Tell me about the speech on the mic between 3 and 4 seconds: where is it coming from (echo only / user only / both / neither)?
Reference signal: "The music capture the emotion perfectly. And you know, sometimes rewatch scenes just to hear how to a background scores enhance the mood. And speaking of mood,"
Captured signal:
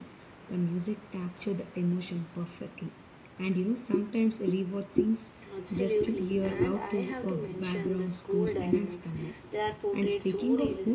echo only